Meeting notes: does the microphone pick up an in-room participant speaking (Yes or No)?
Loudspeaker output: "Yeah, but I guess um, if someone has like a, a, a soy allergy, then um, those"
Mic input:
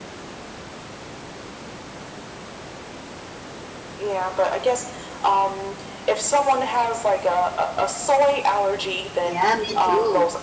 Yes